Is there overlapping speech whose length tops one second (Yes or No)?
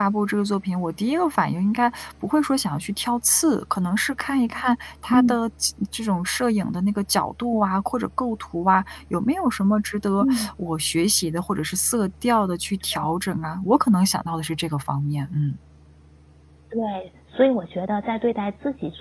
No